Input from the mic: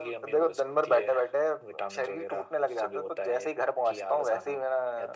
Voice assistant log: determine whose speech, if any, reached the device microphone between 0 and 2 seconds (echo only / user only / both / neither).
echo only